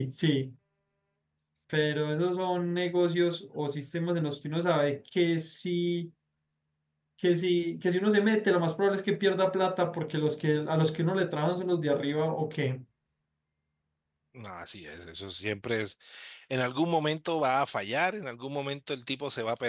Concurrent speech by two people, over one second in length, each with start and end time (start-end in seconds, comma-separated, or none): none